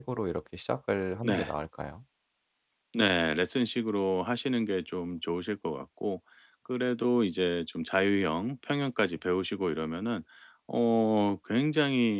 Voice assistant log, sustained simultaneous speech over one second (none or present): none